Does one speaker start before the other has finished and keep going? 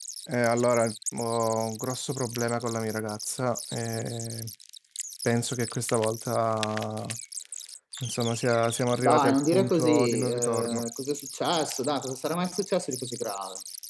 Yes, from 9.0 s

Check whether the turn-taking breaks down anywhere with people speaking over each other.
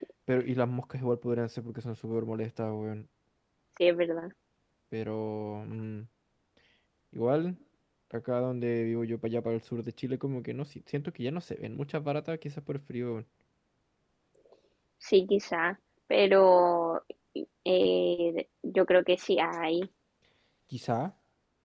No

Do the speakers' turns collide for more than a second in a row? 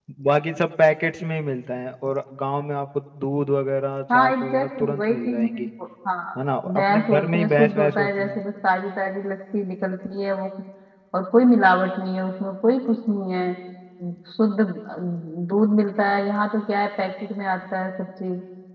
Yes, from 4.1 s

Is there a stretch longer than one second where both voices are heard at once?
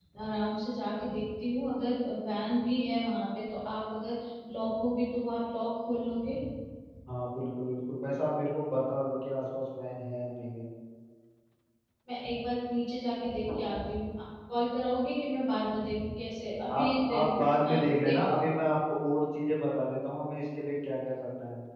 Yes, from 16.7 s

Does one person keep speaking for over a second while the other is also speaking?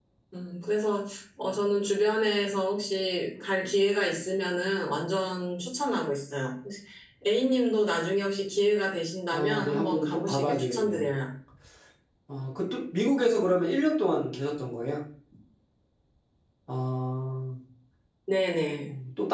Yes, from 9.3 s

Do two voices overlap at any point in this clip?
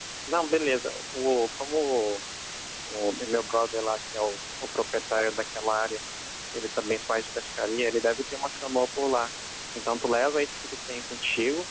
No

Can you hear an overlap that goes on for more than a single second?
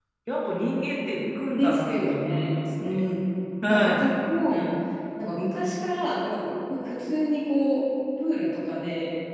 Yes, from 1.6 s

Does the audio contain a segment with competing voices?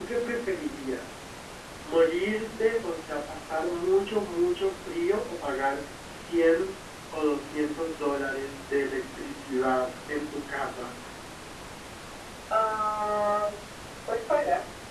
No

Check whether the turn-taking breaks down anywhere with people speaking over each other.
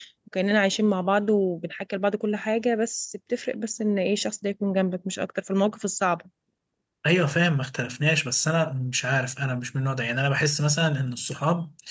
No

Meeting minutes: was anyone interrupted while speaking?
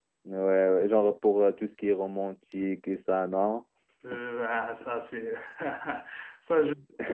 No

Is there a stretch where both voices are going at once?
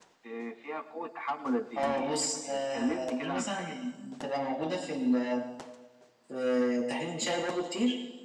Yes, from 1.8 s

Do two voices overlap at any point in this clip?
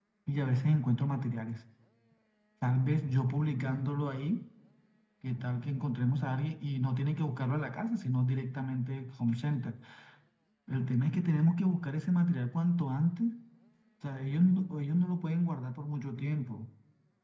No

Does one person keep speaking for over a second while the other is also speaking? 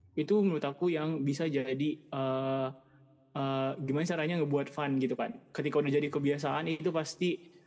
No

